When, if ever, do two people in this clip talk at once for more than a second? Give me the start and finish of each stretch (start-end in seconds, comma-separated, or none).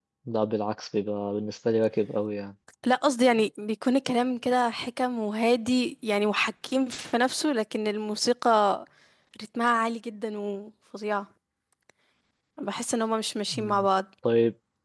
none